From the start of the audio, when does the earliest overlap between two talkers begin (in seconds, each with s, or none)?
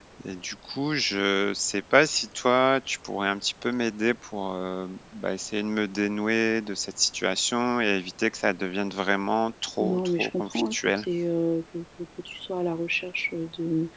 9.8 s